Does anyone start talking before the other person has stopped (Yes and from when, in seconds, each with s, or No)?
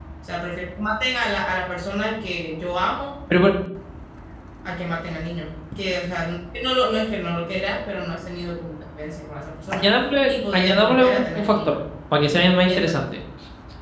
Yes, from 10.6 s